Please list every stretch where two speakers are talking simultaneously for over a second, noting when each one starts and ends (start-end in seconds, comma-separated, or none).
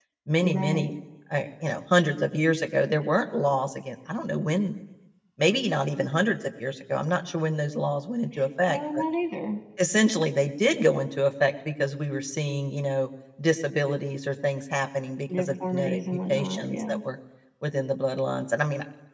15.4-17.0